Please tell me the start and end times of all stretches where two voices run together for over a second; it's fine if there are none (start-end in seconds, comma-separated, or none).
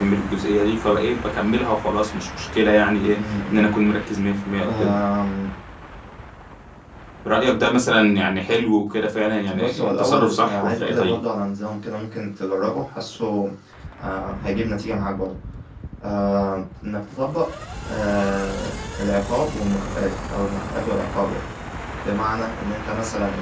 9.5-11.2